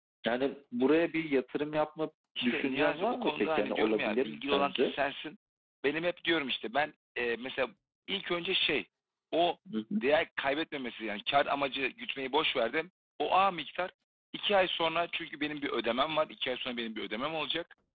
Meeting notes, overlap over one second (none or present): present